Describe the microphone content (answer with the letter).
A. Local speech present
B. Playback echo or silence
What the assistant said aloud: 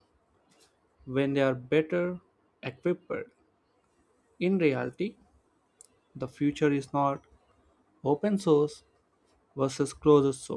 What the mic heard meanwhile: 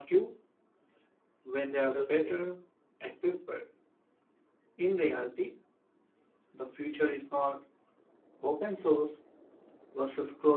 A